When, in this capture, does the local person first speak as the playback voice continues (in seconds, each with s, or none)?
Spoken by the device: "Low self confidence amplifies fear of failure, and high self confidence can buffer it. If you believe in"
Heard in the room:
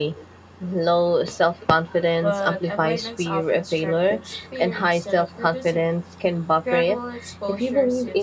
2.2 s